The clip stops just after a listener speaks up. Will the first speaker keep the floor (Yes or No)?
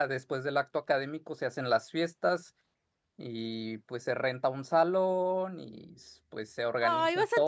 No